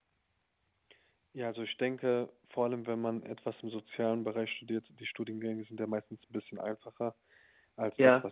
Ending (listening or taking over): listening